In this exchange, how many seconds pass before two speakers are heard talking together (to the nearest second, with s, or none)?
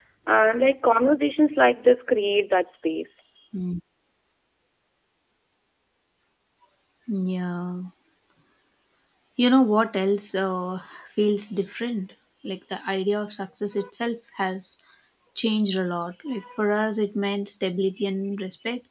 none